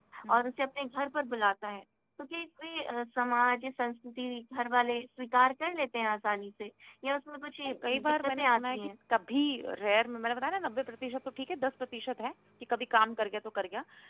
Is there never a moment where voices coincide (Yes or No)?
No